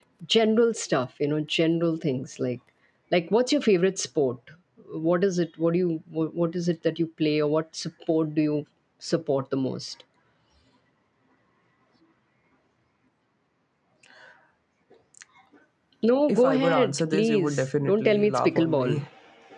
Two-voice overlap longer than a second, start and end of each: 16.3-19.0

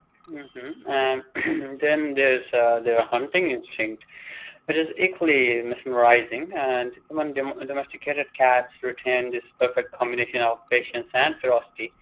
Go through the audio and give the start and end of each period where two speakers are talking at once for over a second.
none

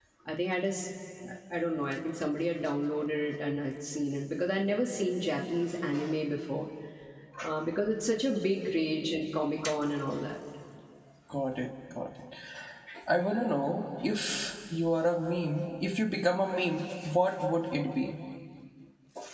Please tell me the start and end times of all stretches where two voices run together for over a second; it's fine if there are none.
none

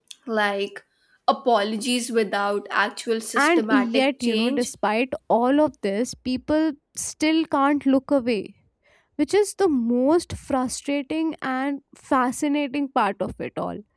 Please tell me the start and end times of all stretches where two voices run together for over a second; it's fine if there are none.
3.4-4.7

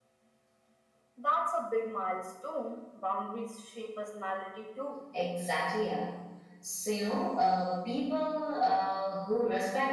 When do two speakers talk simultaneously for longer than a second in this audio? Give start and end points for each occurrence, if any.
none

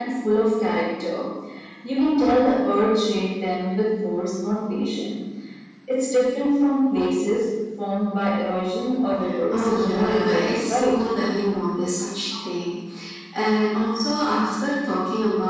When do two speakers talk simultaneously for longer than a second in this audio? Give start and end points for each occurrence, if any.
9.5-11.0

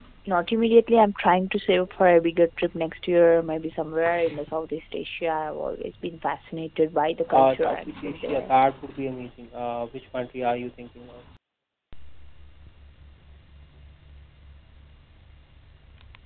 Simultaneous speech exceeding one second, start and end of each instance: 7.3-8.5

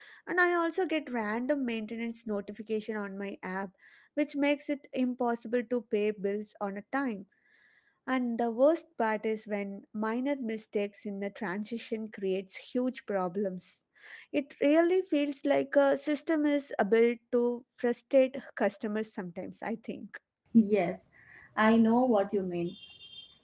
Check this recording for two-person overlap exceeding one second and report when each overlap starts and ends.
none

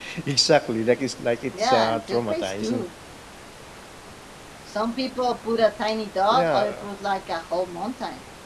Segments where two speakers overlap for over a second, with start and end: 1.6-2.8

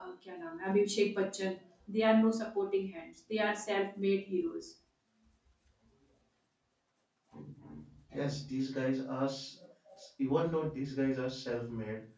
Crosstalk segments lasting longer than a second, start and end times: none

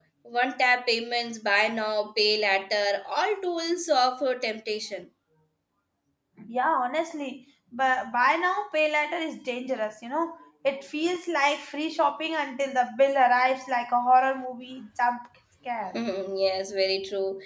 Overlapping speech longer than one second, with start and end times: none

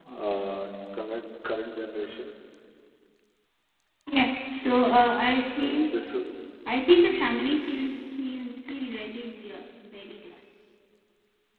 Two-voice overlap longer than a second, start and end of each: none

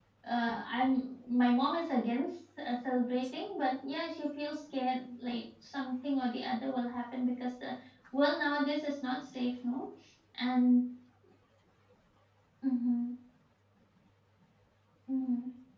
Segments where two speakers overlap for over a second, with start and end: none

